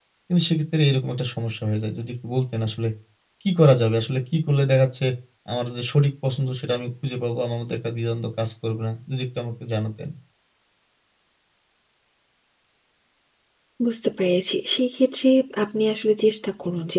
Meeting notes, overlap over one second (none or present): none